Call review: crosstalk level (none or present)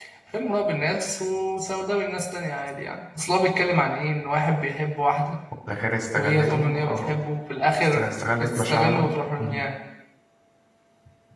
present